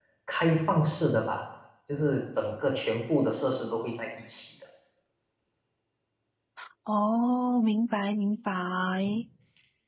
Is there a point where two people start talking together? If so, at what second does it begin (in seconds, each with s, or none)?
none